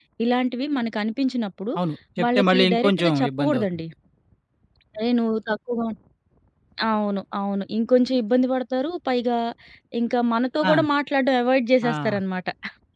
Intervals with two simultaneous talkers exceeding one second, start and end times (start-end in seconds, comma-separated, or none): 2.2-3.8